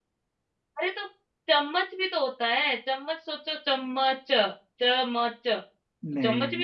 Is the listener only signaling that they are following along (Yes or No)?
Yes